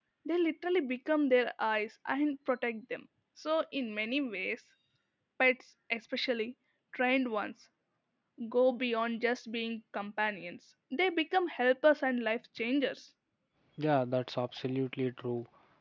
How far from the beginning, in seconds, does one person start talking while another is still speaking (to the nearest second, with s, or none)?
none